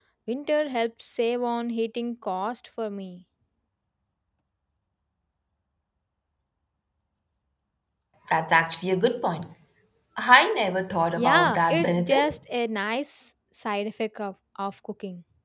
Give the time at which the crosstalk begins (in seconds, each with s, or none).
11.2 s